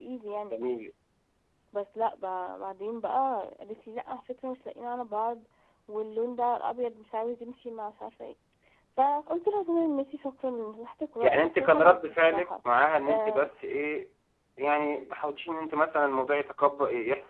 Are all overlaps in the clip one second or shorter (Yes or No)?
No